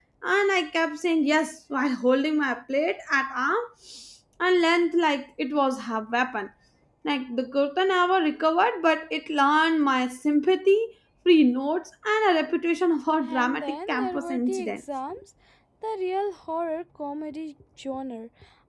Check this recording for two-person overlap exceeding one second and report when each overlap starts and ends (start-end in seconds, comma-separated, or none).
13.2-14.7